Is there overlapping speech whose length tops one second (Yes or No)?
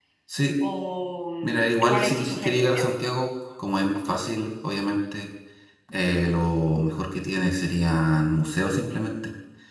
Yes